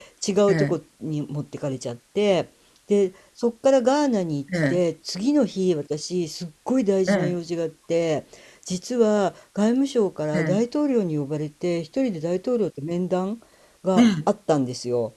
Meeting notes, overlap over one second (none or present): none